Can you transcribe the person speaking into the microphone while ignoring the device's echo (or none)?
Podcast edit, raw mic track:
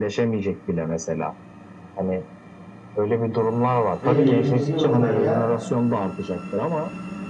ve 20. yılındayken